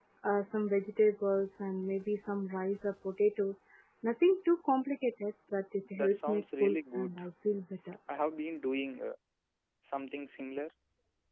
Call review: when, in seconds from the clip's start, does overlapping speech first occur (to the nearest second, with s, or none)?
6 s